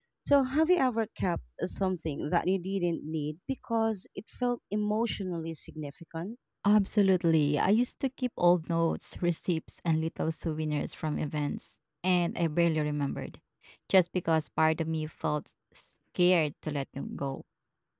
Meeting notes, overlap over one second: none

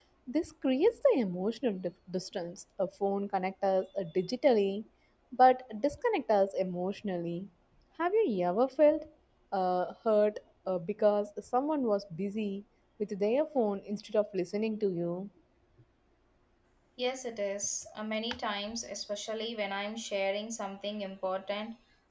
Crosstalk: none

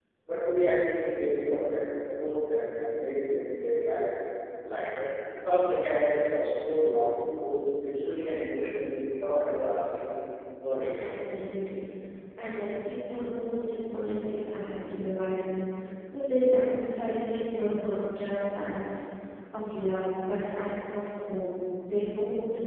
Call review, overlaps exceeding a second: none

